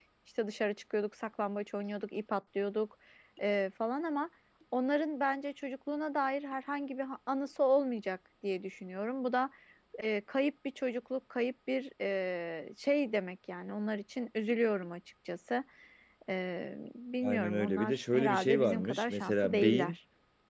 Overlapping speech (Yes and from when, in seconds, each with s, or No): Yes, from 17.2 s